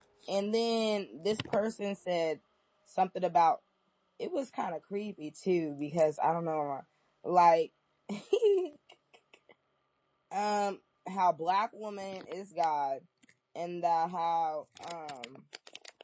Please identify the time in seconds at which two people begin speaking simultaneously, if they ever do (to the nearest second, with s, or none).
none